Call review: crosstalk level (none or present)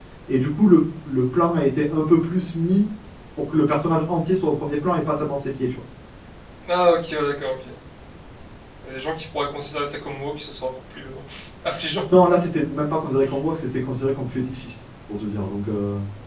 none